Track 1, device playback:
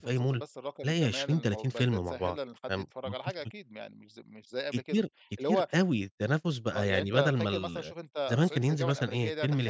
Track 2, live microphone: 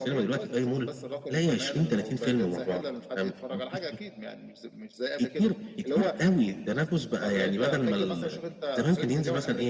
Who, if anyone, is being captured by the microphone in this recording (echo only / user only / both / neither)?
echo only